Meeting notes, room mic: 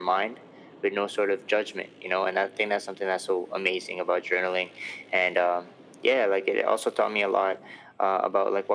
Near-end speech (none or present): none